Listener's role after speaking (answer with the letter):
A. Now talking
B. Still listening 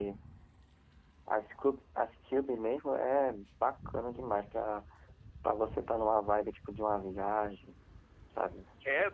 A